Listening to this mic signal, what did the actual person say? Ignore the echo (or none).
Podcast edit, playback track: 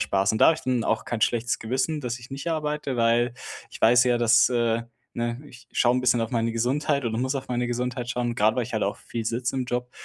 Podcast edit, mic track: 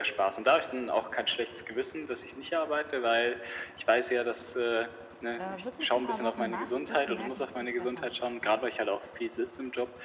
äh, wirklich ein paar Wochen machst, wirst du merken, es wird besser mit der Zeit.